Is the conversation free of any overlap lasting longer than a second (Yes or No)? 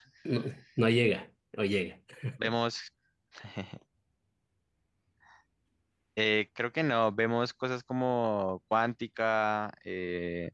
Yes